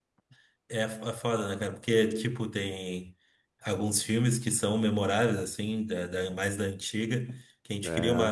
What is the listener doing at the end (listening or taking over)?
listening